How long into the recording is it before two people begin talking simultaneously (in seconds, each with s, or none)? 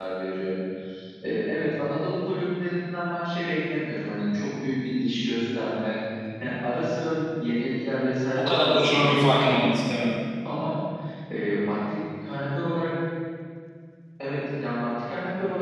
8.3 s